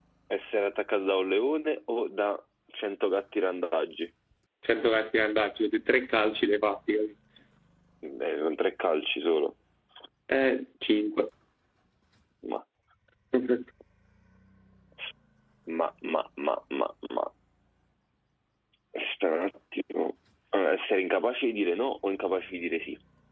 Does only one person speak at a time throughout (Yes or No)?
Yes